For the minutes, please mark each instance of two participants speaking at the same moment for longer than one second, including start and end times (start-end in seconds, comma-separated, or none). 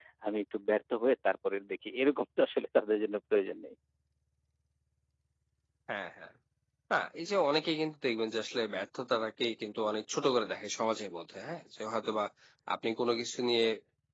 none